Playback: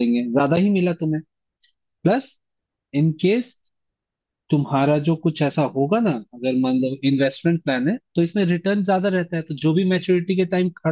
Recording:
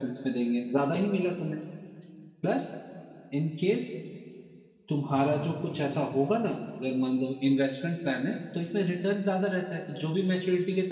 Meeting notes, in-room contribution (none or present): present